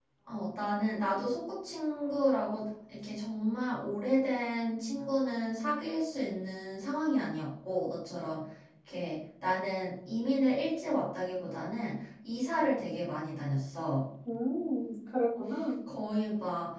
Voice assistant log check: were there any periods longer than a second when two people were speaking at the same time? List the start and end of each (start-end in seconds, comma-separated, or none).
none